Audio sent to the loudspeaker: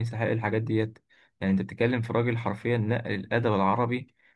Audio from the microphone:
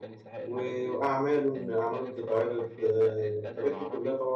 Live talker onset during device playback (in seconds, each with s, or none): 0.5 s